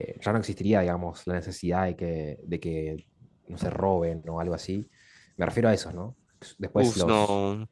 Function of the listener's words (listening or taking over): taking over